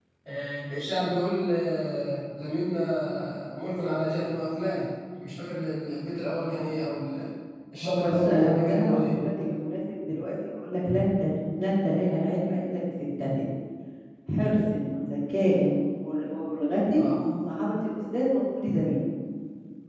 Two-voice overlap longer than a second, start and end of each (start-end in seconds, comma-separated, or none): 7.8-9.2